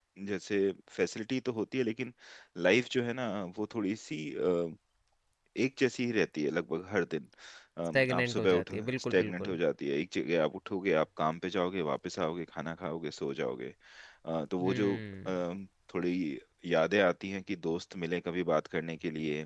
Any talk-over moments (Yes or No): Yes